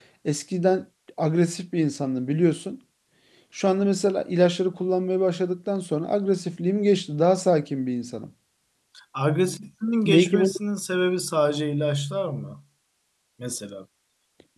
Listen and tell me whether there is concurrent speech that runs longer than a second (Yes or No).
No